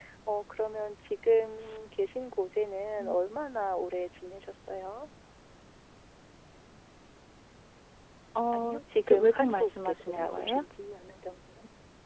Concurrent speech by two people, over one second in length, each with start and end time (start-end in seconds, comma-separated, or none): 8.5-10.6